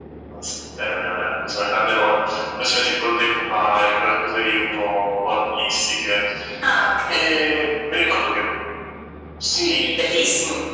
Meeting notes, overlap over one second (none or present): none